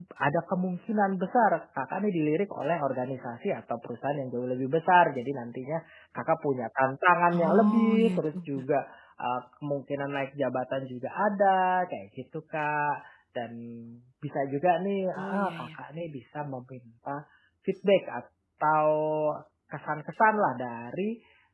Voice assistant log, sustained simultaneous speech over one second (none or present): present